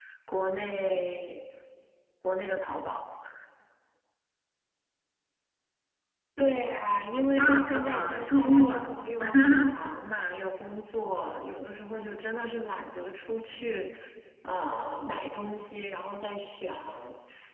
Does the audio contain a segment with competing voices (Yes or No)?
Yes